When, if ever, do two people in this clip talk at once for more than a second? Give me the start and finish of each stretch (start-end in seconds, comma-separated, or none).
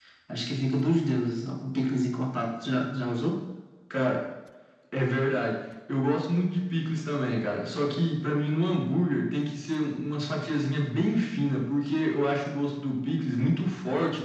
none